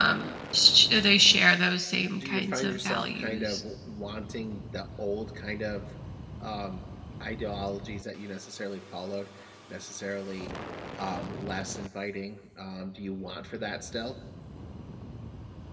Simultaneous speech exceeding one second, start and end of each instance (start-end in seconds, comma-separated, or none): 2.2-3.6